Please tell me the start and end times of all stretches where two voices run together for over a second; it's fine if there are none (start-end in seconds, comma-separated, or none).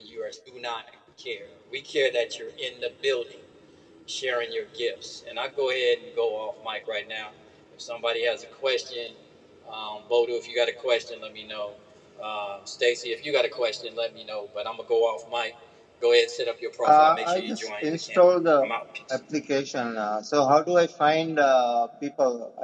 16.8-18.2